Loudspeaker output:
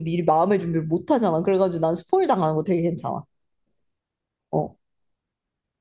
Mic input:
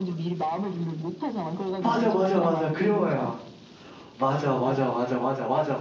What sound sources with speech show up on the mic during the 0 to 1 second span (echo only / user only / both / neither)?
echo only